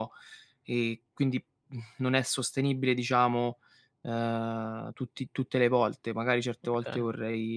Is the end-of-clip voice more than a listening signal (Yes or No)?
No